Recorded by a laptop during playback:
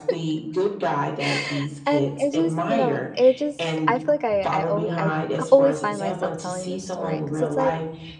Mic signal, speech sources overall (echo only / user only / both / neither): both